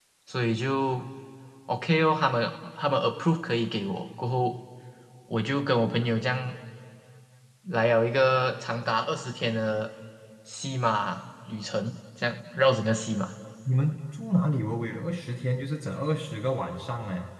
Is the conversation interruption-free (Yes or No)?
Yes